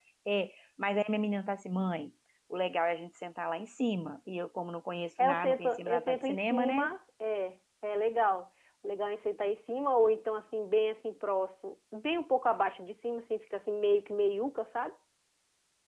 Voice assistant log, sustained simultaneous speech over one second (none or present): present